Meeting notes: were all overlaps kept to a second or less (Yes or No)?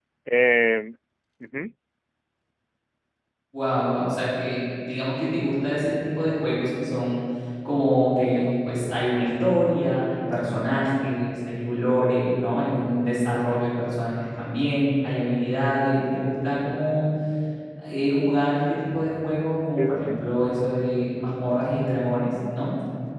Yes